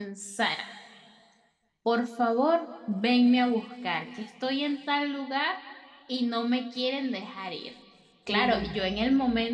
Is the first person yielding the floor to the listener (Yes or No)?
No